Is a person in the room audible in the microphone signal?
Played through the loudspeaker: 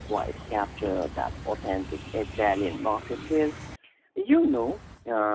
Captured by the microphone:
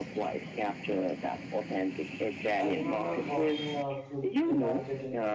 Yes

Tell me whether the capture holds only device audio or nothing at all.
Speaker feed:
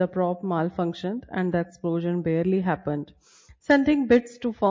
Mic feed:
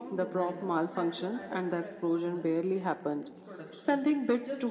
No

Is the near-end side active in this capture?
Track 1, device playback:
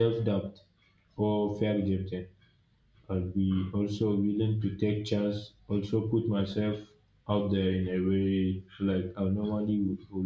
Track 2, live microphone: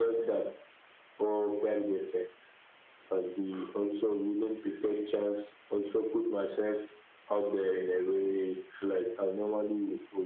No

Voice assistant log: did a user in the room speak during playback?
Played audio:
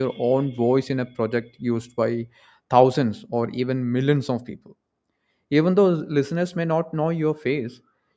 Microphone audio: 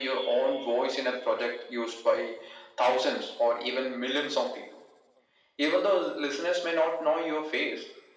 No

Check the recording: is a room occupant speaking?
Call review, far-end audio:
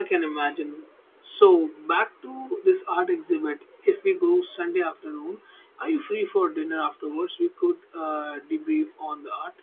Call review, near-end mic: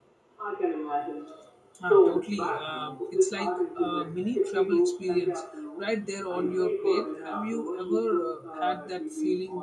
Yes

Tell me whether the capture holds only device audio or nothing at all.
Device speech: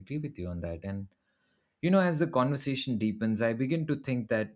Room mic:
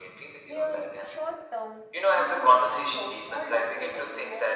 No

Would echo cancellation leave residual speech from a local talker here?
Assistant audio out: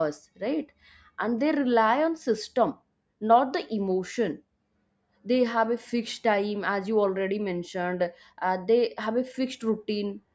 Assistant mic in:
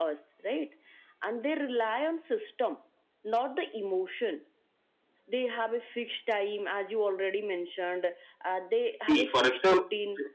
Yes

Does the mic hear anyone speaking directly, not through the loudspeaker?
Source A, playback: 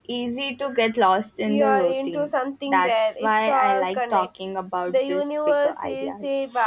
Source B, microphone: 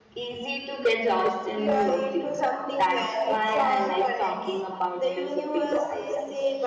No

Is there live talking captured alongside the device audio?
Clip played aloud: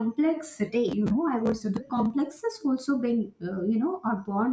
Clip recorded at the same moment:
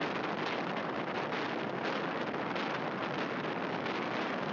No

